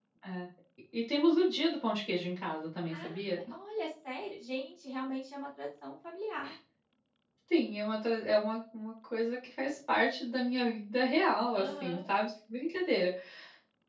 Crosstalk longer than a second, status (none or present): none